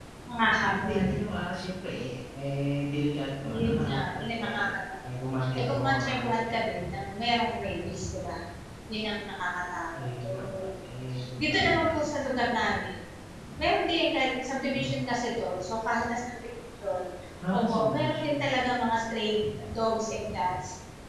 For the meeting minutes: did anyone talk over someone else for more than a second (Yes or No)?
Yes